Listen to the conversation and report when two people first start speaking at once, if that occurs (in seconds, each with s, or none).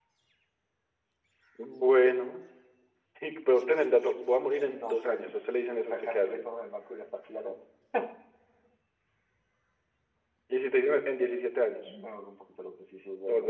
4.7 s